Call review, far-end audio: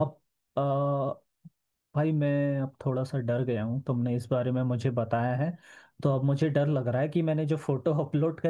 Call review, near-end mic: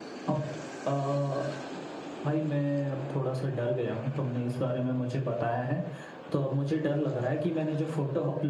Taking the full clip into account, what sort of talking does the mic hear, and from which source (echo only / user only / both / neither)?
echo only